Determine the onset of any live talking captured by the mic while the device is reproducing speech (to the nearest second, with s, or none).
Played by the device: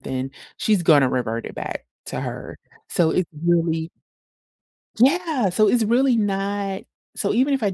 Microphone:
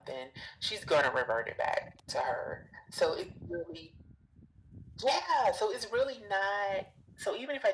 none